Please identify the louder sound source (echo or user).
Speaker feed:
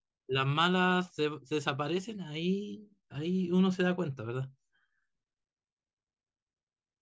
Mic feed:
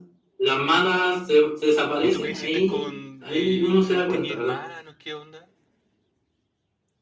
echo